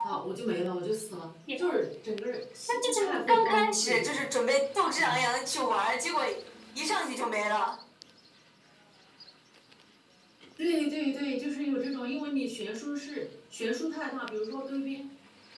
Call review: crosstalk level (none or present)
present